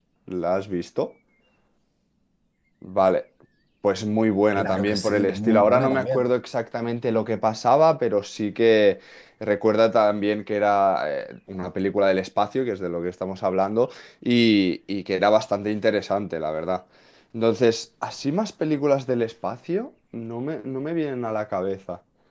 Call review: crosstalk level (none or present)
present